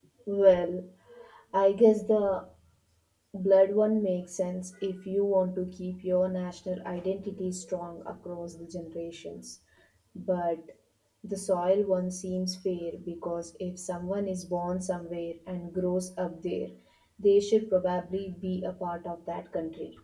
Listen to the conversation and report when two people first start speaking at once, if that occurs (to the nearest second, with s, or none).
none